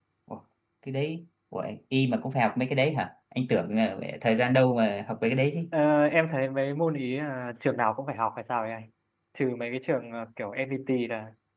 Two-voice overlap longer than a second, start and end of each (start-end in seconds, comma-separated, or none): none